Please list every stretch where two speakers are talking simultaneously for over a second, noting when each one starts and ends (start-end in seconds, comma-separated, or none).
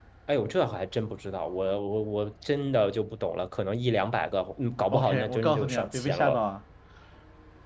4.9-6.4